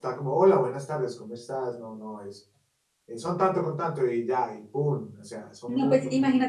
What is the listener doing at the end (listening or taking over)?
taking over